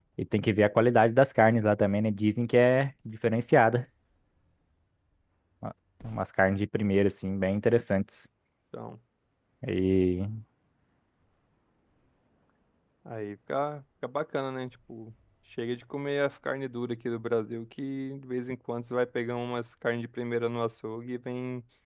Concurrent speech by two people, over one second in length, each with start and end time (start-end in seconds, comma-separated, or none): none